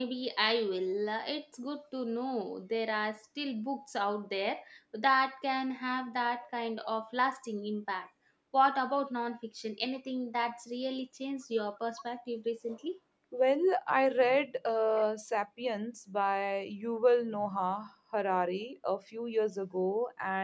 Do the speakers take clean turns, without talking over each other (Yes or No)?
Yes